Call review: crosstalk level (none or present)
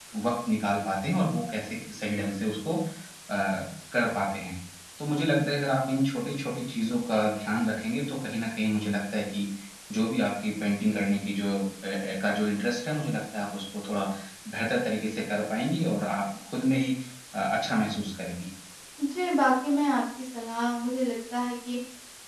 none